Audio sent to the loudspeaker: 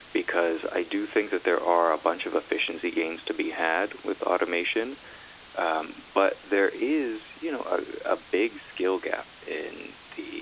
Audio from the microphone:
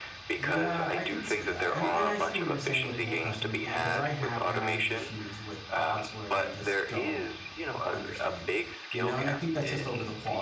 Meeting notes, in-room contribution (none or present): present